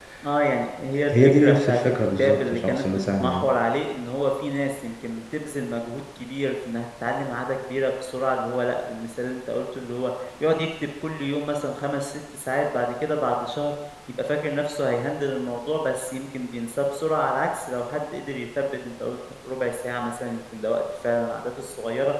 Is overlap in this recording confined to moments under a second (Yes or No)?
No